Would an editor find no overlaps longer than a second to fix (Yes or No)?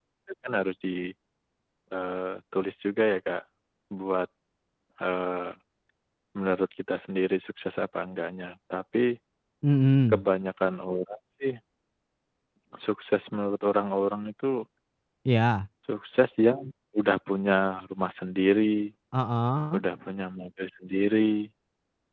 Yes